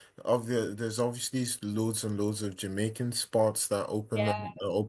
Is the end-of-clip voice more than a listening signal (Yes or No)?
No